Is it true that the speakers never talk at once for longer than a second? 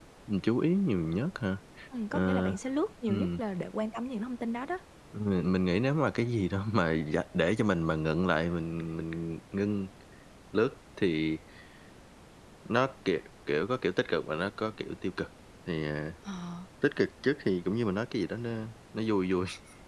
Yes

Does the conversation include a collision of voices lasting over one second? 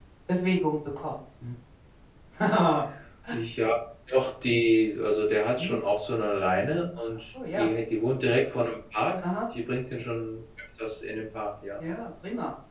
No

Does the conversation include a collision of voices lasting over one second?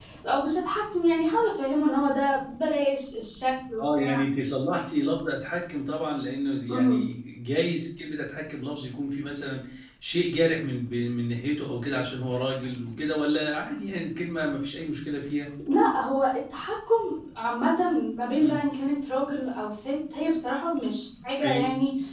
No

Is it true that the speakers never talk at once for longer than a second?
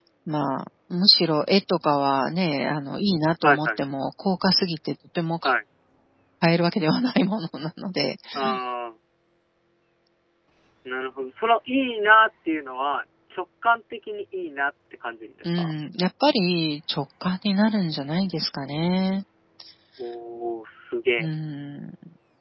Yes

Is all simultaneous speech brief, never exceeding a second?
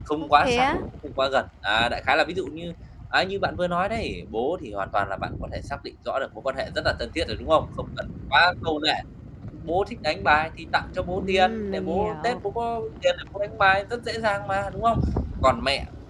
No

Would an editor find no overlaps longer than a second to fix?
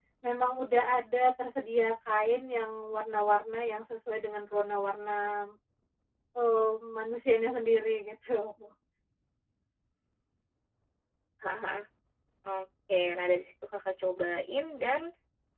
Yes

